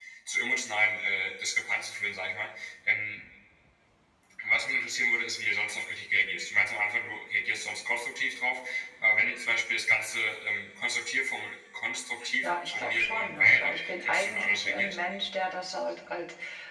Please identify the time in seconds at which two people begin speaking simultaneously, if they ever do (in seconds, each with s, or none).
12.2 s